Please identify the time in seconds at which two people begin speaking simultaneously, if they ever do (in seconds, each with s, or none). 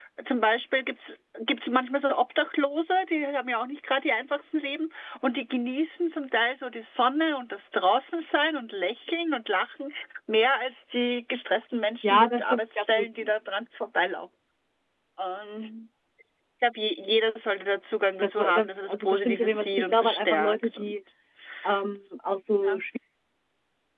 12.0 s